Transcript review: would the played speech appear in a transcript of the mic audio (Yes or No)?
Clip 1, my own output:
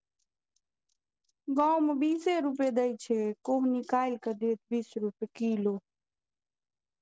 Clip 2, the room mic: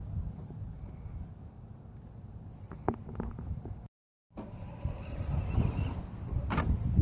No